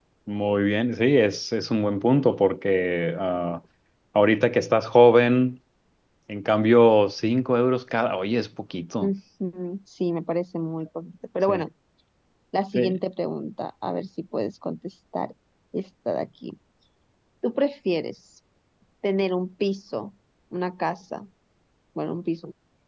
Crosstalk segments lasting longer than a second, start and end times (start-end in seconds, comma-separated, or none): none